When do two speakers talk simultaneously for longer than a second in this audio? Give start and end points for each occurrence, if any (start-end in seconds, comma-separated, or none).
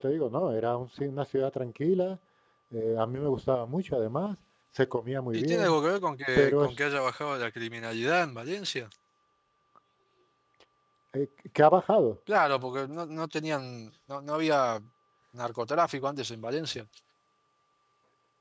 none